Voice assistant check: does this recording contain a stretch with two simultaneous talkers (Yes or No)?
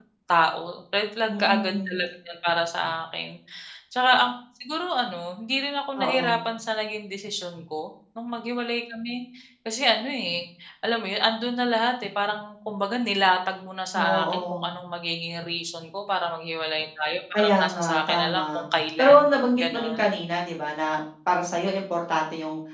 Yes